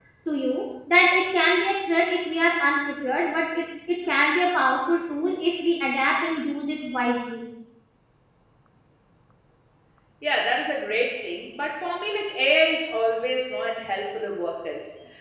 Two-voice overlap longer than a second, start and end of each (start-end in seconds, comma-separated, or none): none